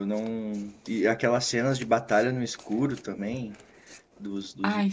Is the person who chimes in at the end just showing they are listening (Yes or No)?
Yes